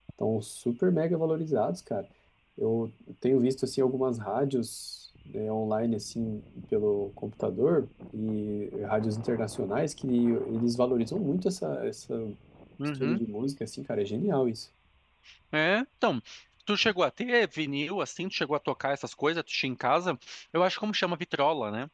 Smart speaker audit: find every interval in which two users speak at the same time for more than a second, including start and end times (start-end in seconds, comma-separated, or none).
none